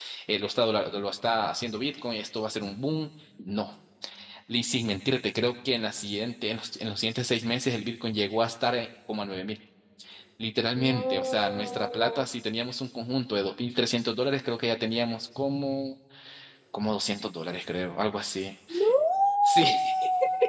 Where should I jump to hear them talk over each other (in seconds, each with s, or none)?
10.9 s